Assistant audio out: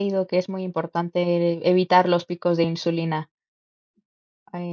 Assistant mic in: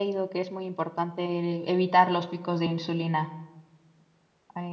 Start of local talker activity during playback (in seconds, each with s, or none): none